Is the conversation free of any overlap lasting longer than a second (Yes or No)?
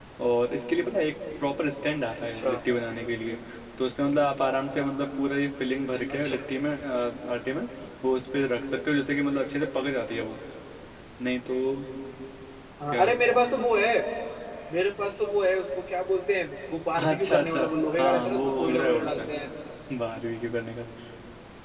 No